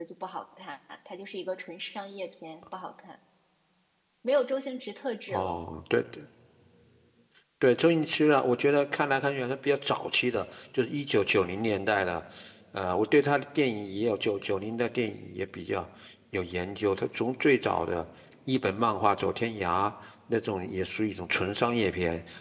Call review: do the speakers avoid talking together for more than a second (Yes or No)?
Yes